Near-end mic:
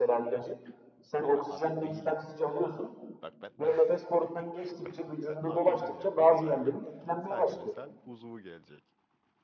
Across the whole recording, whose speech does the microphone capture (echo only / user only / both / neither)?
both